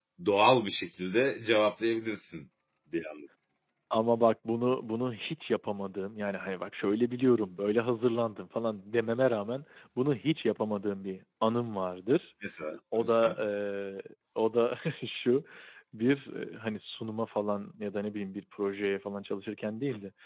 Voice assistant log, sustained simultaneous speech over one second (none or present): none